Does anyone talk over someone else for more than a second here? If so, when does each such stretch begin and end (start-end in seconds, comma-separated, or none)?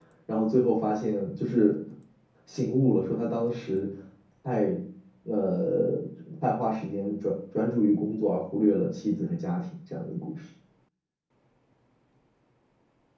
none